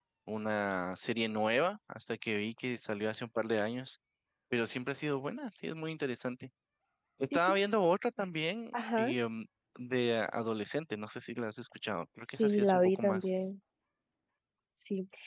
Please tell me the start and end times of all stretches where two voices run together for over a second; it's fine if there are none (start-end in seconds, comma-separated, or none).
12.2-13.5